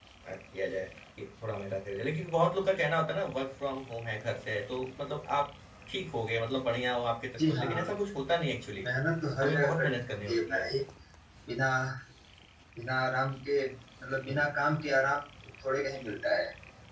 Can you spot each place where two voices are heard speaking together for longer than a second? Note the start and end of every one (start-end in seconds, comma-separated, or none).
9.4-10.7